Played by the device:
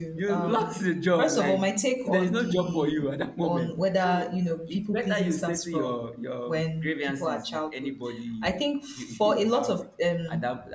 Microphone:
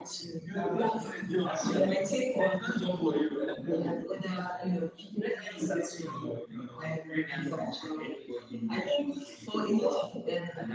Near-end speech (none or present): none